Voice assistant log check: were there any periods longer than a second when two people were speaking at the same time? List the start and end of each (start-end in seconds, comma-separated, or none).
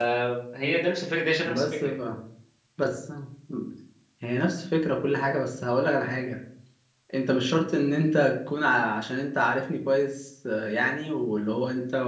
none